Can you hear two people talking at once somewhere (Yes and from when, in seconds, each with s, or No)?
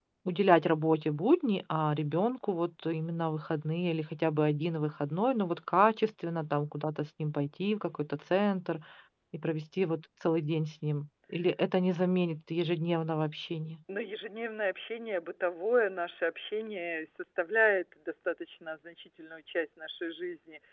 No